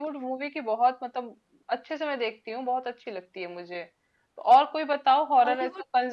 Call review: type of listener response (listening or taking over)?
listening